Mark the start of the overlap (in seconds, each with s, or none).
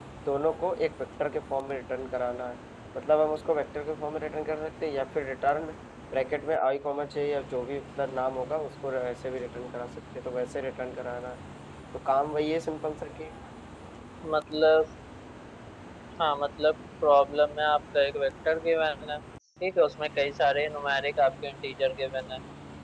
none